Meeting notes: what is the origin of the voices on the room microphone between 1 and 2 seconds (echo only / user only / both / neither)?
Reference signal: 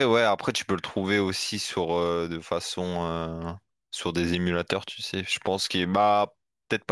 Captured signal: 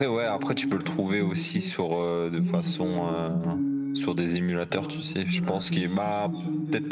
both